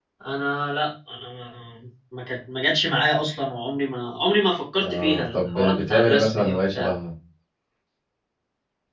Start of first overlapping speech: 4.8 s

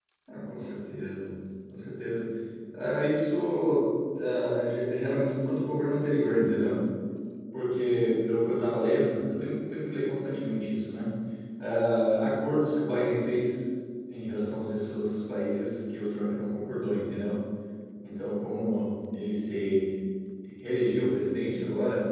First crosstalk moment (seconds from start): none

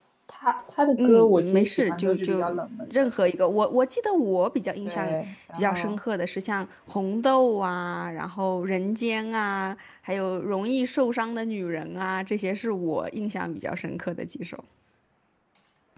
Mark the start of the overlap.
1.0 s

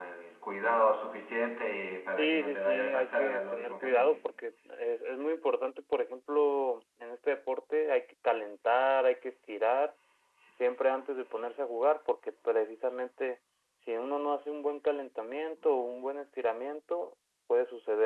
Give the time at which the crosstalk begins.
2.2 s

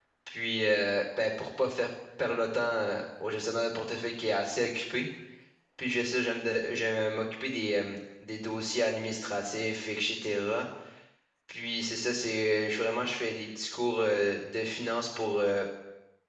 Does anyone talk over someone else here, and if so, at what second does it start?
none

